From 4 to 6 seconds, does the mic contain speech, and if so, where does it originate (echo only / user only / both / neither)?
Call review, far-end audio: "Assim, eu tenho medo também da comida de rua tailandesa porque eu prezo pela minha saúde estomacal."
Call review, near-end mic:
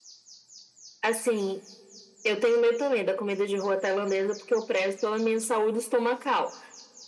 echo only